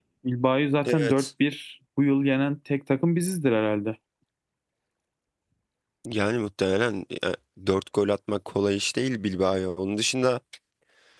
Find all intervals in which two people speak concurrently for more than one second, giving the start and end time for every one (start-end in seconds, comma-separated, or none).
none